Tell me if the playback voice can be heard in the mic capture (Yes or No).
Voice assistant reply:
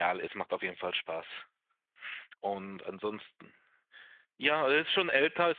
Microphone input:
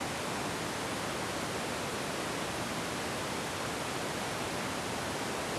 No